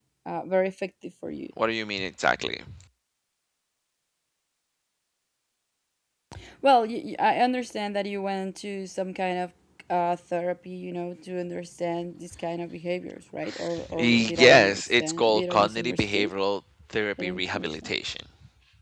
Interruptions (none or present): present